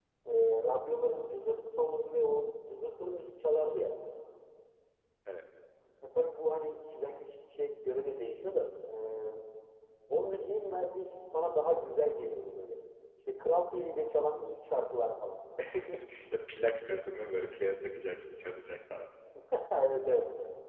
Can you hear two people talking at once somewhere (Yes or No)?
No